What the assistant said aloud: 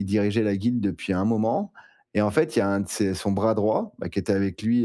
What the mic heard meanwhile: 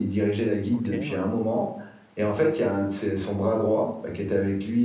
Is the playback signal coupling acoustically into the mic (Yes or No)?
Yes